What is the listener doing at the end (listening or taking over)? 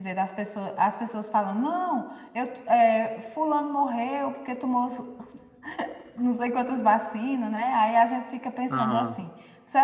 listening